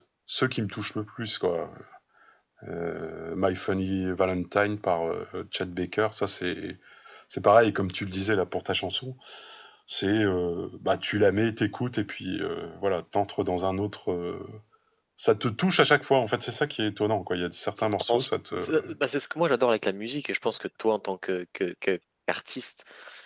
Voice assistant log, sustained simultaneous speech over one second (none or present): none